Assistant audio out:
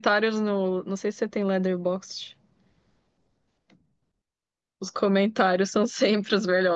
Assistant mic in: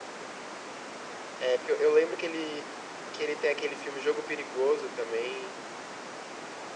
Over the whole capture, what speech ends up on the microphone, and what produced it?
user only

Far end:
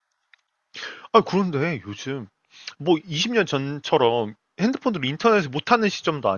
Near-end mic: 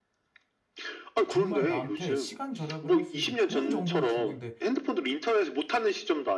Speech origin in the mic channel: both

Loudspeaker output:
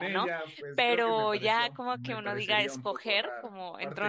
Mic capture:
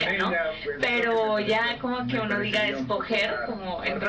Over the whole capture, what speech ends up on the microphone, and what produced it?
echo only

